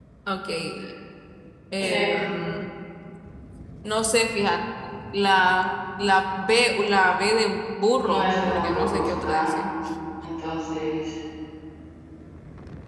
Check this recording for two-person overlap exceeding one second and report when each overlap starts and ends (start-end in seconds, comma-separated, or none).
8.1-9.6